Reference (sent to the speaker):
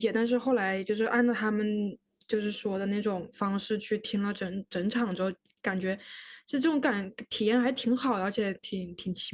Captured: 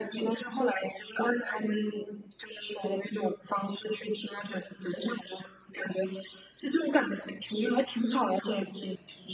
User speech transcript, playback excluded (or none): none